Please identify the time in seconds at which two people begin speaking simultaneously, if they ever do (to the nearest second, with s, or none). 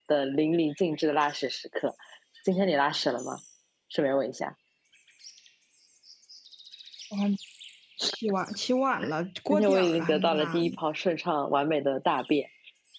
10 s